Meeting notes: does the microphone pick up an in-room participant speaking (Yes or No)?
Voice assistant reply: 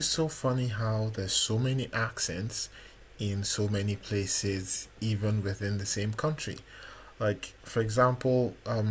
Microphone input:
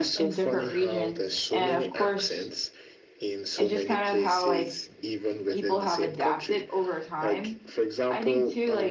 Yes